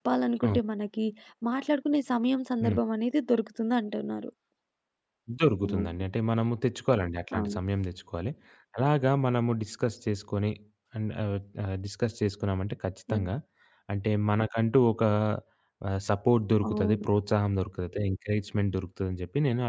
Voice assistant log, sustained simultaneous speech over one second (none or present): none